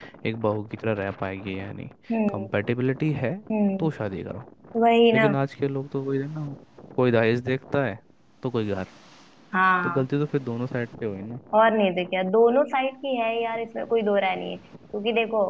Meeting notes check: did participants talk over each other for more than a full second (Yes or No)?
No